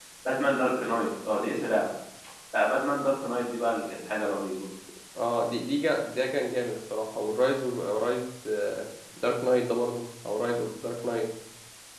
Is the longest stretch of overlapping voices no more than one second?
Yes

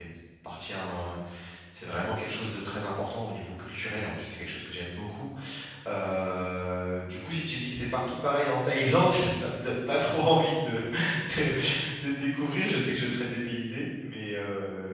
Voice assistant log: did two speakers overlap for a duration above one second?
No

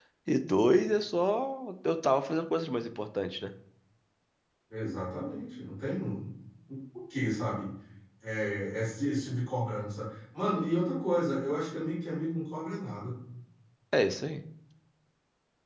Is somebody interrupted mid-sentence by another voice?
No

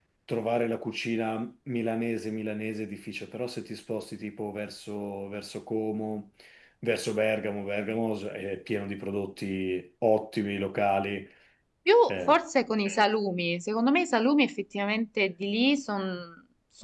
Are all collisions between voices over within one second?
Yes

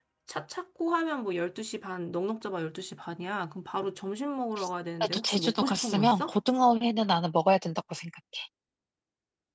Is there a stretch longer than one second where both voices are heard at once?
Yes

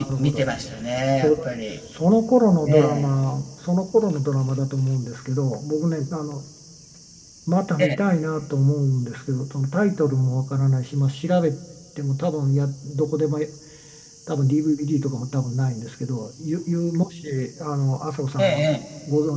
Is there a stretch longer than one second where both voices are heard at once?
No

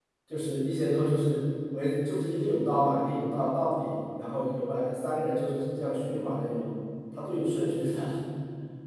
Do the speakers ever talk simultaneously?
No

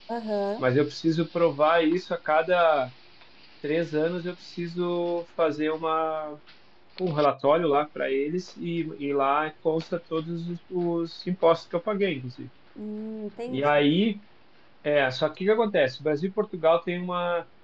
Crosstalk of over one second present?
No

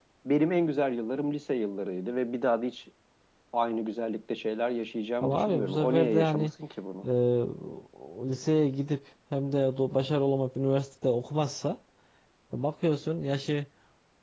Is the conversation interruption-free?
No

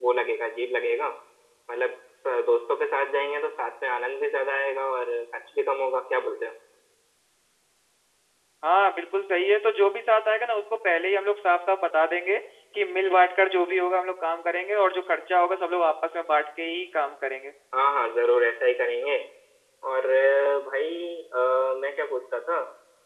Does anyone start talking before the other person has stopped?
No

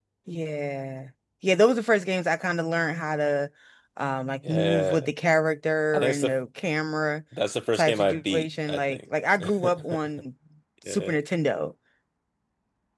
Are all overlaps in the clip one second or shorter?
No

